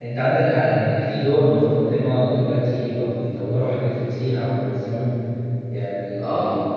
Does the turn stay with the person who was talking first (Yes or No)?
Yes